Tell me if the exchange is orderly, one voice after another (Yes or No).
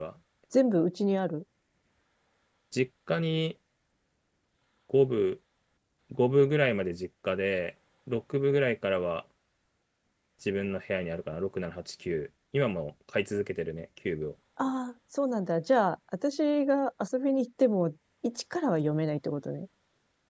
Yes